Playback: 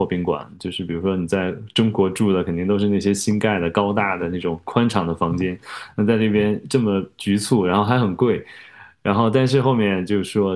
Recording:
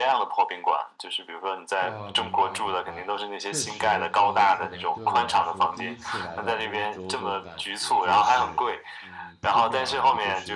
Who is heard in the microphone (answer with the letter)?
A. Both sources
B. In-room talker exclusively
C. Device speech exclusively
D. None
A